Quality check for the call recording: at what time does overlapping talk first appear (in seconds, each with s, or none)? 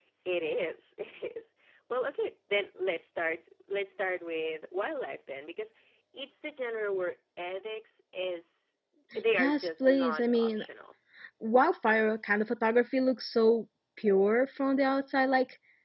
9.4 s